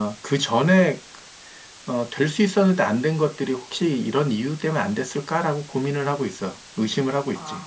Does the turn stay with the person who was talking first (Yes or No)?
No